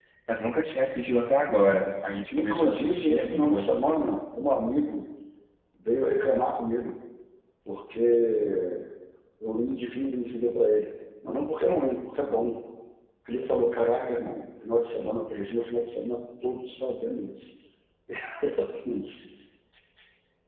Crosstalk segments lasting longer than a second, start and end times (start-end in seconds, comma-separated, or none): 2.3-3.7